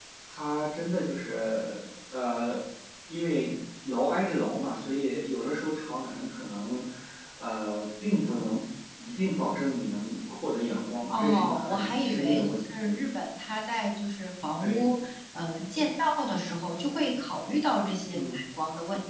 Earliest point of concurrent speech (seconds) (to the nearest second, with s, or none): 11 s